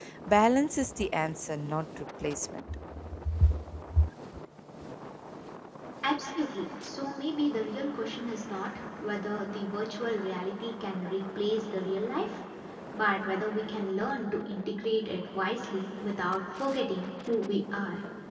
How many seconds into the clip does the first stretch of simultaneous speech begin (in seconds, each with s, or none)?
none